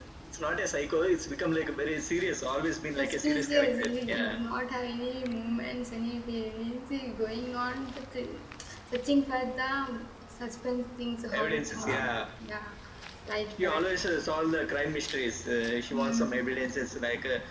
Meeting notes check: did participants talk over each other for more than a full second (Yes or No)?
Yes